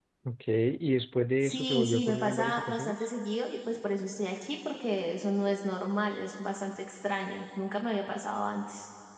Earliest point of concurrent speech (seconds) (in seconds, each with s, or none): 1.4 s